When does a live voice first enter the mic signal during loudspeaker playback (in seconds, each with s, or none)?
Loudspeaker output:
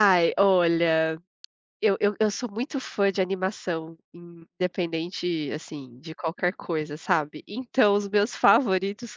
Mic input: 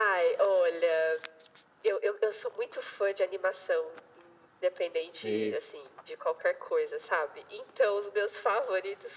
5.2 s